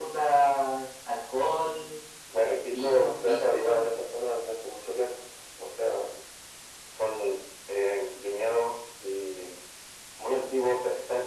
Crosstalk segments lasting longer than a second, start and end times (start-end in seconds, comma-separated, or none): 2.7-3.9